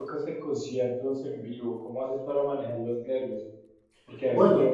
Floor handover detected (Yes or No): No